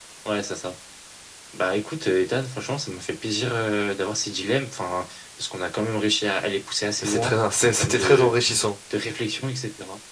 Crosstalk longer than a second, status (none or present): present